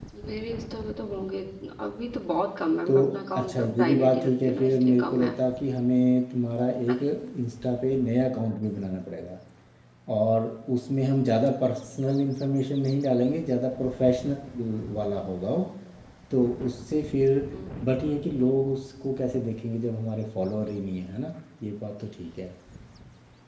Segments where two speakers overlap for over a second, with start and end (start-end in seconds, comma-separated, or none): 3.4-5.4